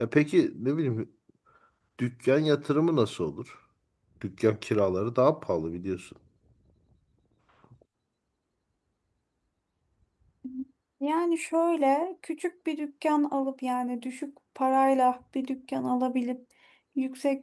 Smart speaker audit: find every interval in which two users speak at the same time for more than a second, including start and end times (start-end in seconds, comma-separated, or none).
none